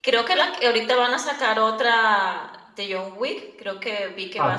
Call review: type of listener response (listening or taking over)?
taking over